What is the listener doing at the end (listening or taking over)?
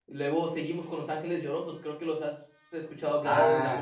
taking over